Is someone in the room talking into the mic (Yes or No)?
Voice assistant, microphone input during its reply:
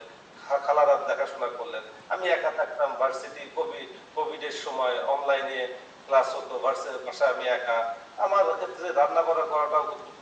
No